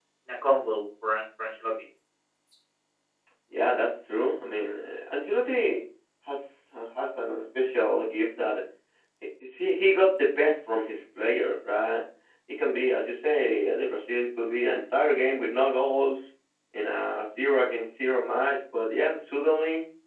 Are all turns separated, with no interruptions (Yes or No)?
Yes